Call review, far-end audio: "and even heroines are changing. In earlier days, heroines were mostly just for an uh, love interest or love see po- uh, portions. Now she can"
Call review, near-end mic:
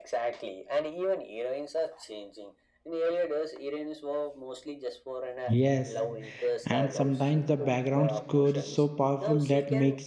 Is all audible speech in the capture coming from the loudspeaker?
No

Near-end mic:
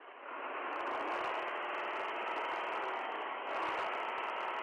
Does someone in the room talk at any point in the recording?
No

